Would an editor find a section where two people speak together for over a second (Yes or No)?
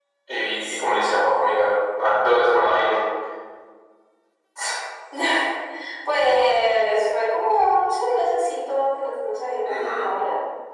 No